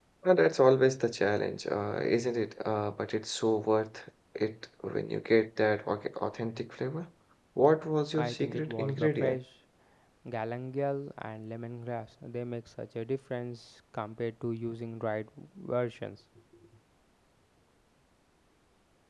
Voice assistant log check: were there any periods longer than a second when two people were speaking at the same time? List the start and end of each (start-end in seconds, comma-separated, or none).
8.2-9.4